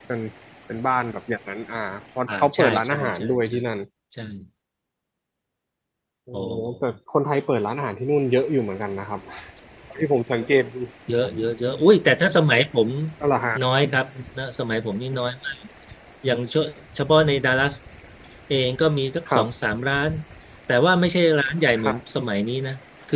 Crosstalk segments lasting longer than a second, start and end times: 2.3-3.5

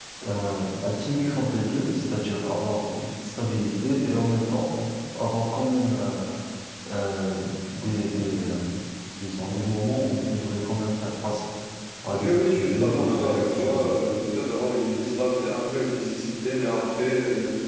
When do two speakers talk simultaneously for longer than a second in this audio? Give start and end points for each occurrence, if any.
12.1-14.0

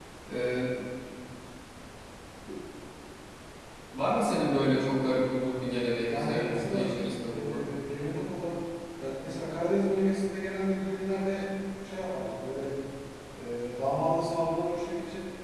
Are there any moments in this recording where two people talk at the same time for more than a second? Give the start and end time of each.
6.0-7.6

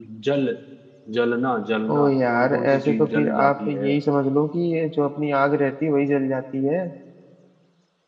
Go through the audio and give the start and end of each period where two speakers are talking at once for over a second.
1.9-3.9

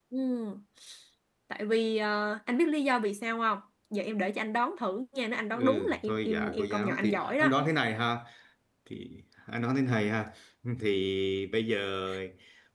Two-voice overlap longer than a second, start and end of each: 5.5-7.5

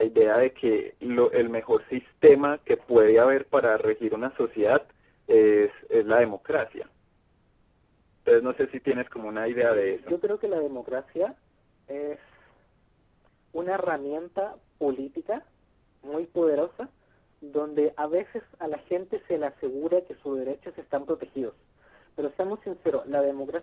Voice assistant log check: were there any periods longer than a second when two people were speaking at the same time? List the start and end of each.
none

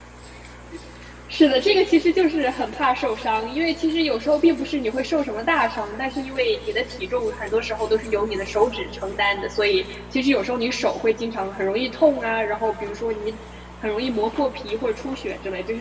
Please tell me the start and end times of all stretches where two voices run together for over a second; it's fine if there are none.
none

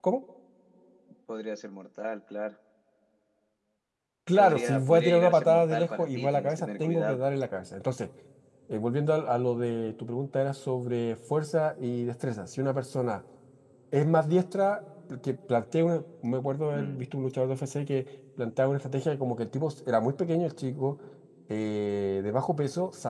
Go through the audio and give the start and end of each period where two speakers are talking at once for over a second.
4.4-7.2

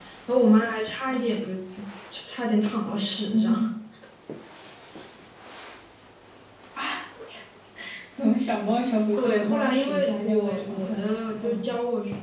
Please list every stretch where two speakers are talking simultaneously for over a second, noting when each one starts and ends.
9.2-11.7

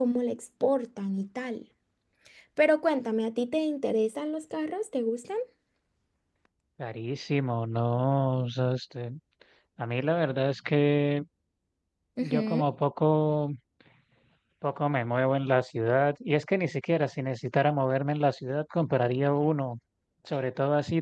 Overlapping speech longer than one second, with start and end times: none

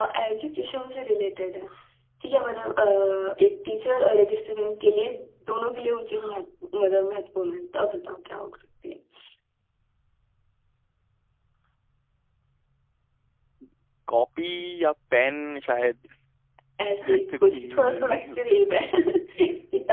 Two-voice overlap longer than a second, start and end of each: 17.0-18.6

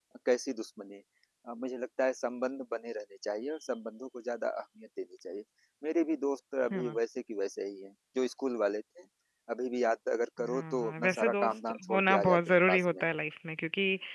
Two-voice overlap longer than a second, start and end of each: 10.5-13.0

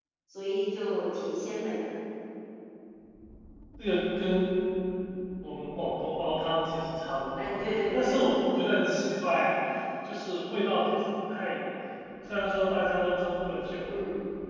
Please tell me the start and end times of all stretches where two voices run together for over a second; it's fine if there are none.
7.4-8.6

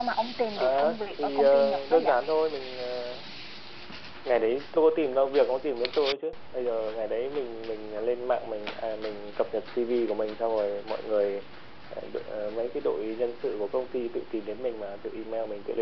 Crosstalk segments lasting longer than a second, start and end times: 0.6-2.1

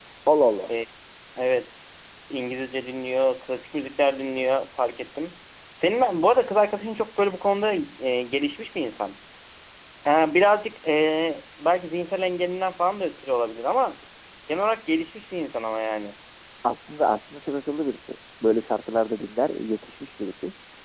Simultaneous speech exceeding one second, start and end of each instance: none

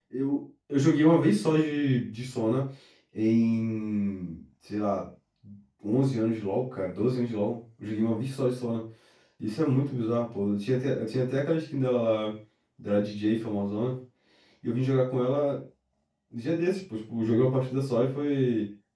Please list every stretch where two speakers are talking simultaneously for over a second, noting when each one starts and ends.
none

